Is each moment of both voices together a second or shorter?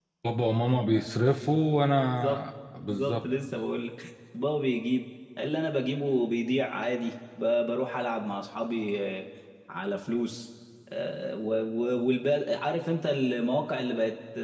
Yes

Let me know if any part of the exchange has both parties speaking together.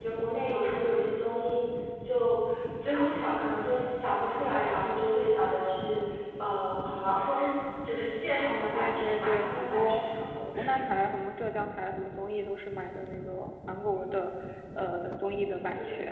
Yes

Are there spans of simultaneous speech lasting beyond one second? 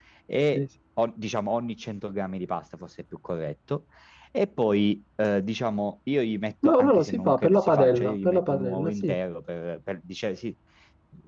Yes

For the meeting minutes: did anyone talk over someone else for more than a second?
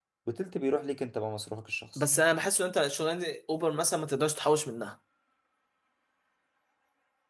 No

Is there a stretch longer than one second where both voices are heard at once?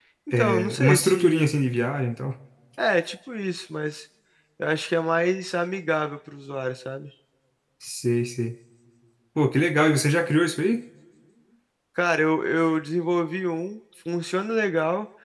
Yes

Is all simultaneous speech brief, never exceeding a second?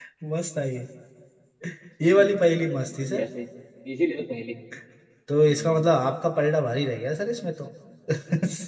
No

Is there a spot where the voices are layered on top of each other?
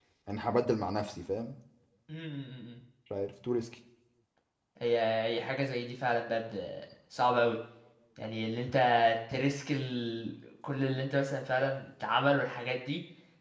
No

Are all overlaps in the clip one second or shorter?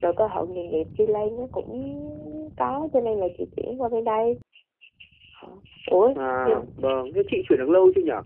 Yes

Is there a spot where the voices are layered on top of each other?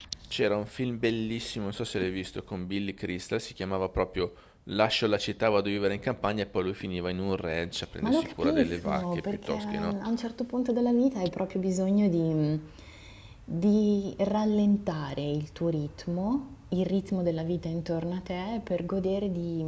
Yes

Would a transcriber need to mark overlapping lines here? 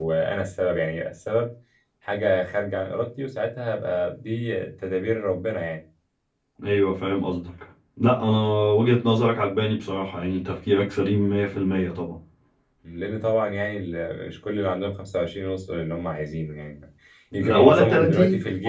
Yes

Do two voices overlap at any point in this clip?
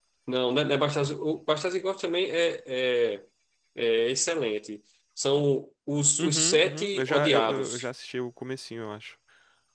Yes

